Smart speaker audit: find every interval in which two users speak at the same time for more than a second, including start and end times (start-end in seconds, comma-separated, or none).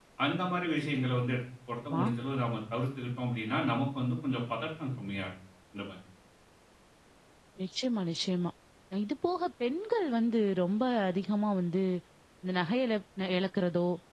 none